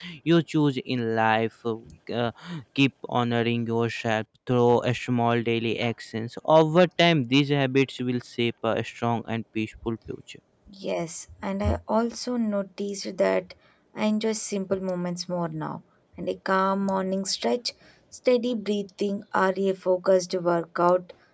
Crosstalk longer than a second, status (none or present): none